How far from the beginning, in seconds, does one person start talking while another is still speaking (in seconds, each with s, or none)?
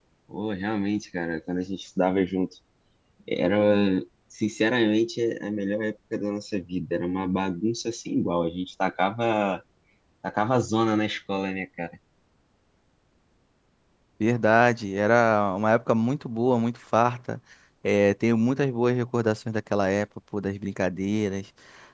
none